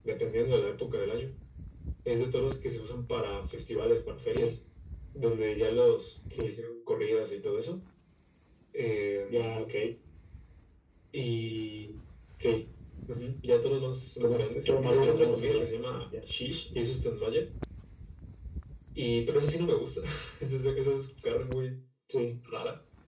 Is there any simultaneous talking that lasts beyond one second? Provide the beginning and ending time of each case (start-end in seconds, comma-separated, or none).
14.2-15.6